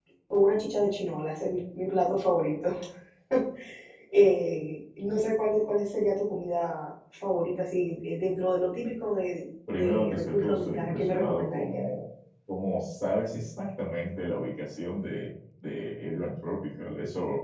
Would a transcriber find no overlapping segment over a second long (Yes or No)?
No